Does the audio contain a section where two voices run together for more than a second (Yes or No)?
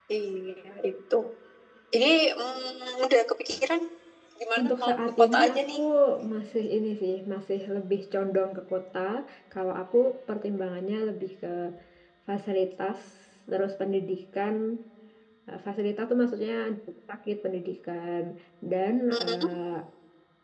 Yes